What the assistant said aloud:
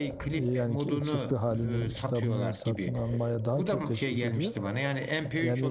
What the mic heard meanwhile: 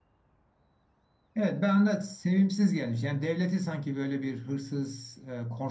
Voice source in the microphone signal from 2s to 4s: user only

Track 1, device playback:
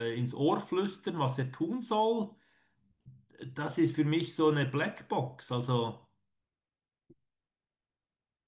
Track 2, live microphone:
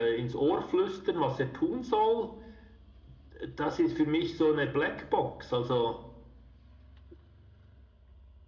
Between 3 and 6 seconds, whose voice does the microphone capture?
echo only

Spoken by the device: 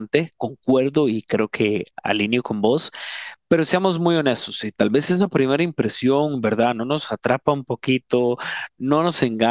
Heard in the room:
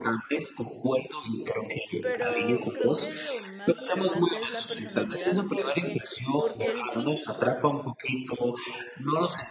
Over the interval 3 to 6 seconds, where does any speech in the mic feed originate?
both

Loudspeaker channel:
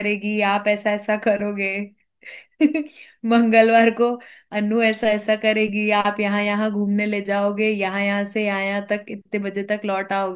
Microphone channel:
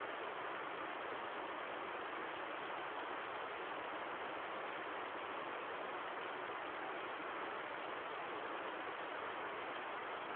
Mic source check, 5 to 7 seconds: neither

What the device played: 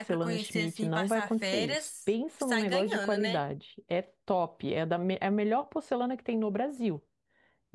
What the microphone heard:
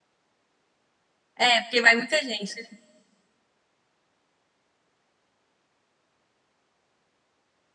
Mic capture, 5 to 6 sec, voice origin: neither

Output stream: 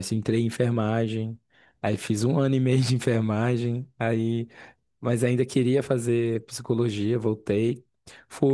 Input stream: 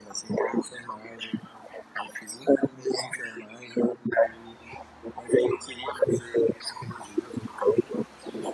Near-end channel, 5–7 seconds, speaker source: echo only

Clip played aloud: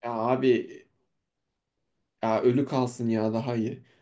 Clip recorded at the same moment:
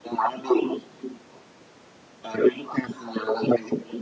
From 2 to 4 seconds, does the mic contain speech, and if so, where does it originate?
echo only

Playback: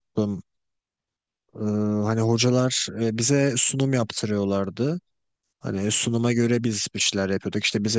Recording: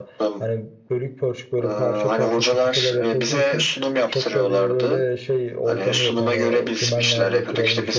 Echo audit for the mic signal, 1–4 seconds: both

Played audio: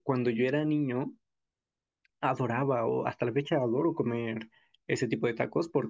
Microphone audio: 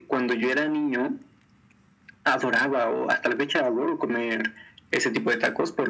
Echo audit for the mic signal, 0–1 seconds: echo only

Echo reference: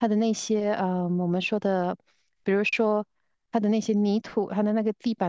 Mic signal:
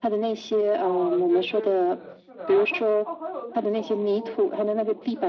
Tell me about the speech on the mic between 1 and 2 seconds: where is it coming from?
both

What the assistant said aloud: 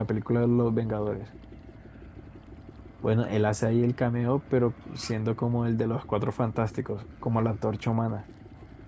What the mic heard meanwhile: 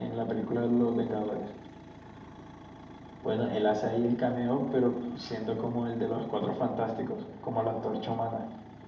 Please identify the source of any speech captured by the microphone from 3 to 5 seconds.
echo only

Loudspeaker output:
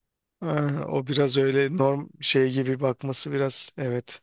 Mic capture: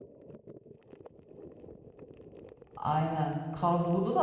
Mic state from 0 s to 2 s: neither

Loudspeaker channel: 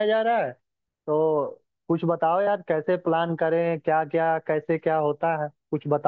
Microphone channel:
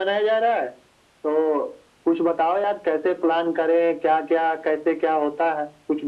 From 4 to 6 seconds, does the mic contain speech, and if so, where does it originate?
echo only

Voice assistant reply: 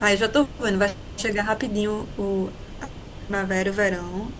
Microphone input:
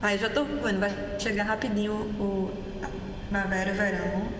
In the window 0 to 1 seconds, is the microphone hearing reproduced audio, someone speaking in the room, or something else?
echo only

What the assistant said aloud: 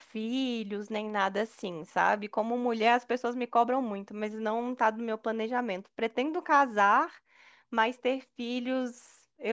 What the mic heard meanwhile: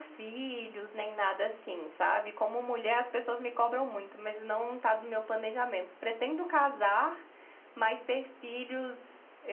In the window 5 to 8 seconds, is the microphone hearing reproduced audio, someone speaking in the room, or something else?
echo only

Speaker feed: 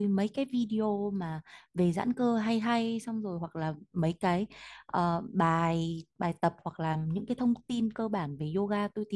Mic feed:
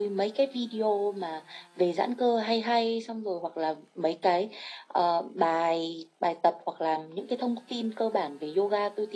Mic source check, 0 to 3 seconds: echo only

